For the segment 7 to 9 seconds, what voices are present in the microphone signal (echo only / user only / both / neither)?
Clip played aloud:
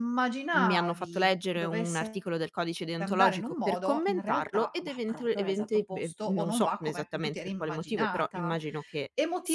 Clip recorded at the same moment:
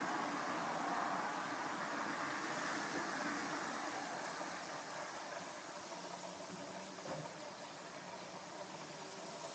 neither